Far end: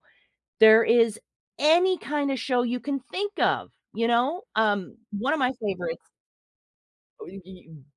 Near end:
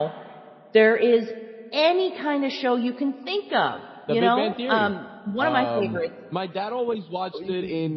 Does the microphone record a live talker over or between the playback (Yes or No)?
Yes